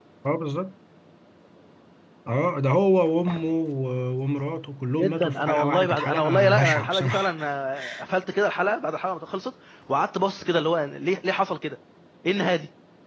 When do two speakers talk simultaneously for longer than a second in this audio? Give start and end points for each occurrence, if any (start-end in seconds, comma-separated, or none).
5.0-7.3